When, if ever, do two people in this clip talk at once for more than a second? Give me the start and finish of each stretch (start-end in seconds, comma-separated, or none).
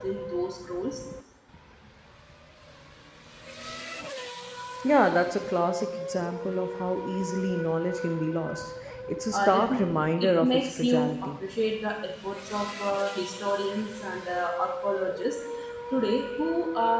9.3-11.3